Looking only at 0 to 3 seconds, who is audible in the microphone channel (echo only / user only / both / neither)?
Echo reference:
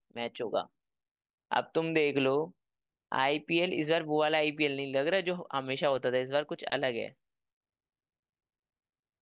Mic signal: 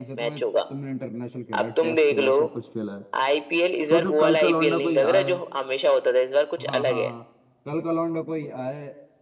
both